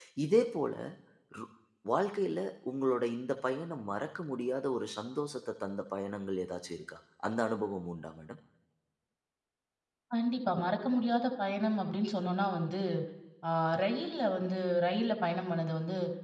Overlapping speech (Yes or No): No